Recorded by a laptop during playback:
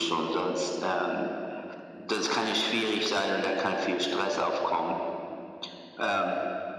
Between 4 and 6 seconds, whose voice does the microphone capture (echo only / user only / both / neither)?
echo only